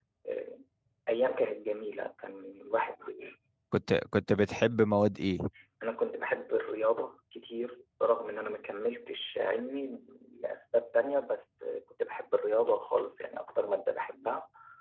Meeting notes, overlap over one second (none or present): none